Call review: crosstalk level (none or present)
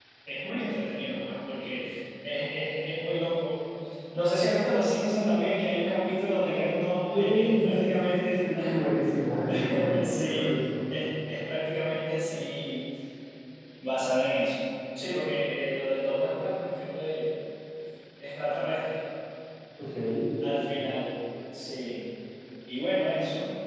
present